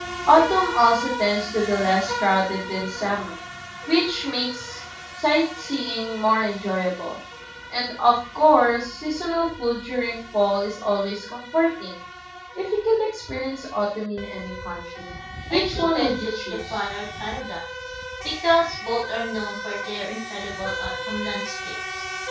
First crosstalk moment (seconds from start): 15.5 s

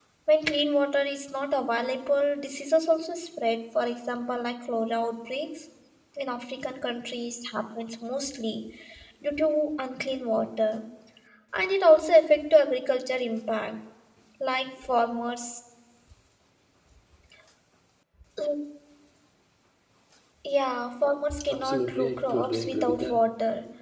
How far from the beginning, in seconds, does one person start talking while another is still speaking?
21.5 s

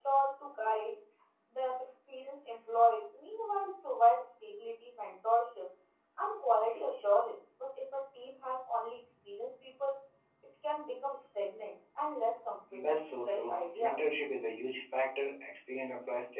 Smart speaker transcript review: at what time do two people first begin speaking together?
12.7 s

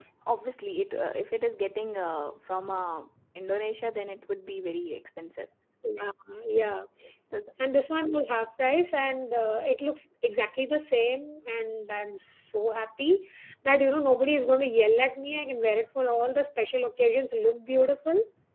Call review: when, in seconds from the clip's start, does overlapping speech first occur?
none

